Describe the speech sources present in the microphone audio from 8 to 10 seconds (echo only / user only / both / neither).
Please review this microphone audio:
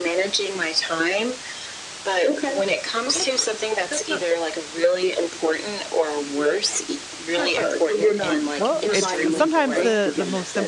both